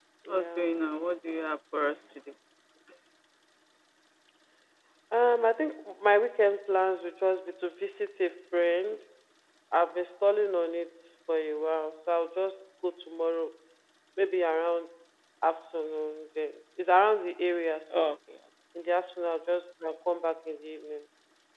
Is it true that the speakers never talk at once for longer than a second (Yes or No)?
Yes